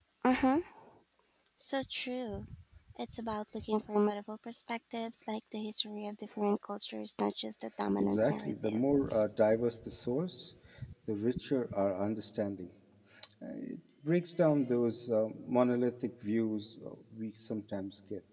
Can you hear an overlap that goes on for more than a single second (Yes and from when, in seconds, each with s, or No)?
Yes, from 8.0 s